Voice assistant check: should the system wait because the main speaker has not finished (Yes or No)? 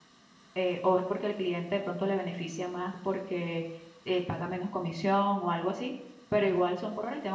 Yes